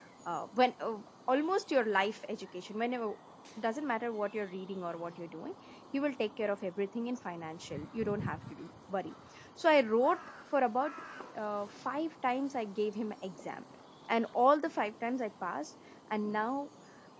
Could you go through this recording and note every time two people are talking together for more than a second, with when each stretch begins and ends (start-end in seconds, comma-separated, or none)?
none